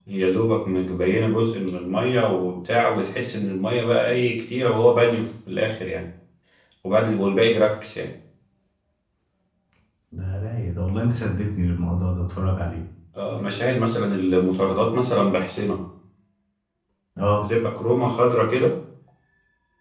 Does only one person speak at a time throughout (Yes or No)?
Yes